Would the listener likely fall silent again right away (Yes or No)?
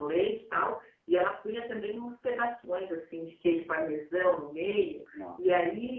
Yes